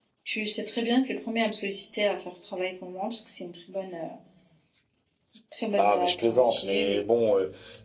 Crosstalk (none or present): present